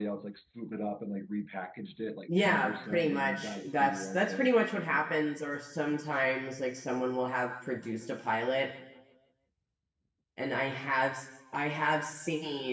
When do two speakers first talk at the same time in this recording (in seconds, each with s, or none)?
2.3 s